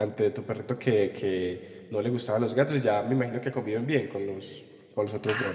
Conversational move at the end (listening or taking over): taking over